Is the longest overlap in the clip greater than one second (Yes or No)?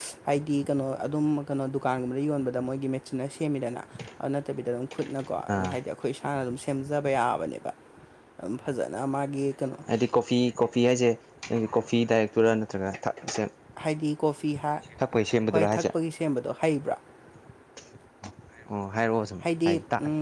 No